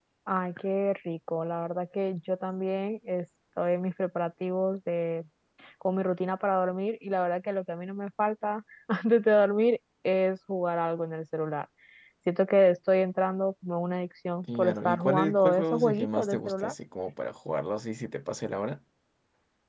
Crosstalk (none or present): present